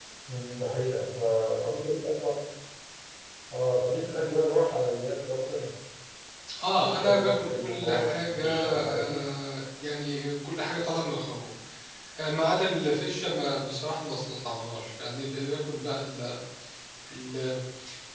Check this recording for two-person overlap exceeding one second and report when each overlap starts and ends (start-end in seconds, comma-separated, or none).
6.8-9.2